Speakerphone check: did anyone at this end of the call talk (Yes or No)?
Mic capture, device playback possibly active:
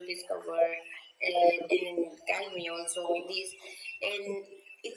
No